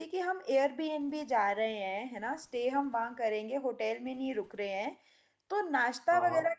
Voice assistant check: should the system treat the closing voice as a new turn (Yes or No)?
No